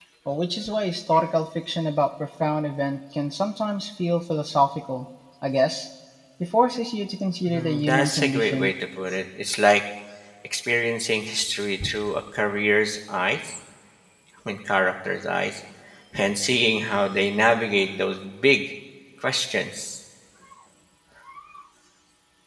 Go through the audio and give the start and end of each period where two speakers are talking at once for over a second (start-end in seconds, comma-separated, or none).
7.4-8.7